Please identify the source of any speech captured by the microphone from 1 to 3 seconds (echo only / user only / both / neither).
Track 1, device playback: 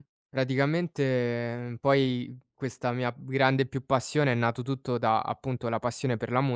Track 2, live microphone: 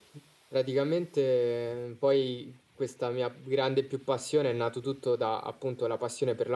echo only